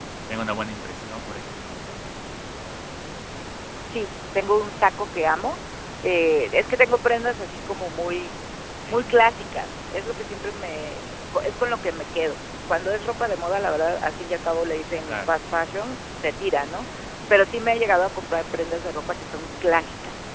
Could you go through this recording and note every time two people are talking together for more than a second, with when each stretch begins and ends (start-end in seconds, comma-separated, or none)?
none